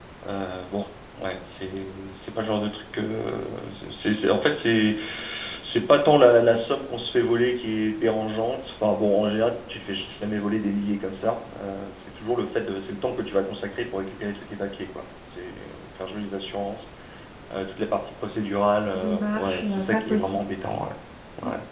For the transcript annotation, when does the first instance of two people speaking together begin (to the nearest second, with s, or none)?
19 s